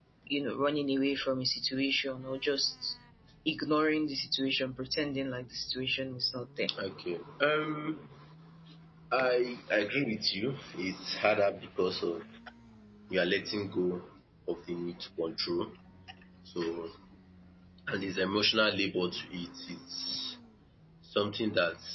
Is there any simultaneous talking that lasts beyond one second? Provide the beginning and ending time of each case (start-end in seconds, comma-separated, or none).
none